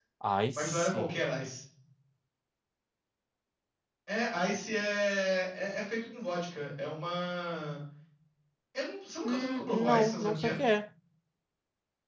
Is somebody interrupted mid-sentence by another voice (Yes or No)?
Yes